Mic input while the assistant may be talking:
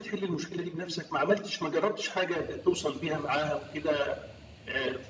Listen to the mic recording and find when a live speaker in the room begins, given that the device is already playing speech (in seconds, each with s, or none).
none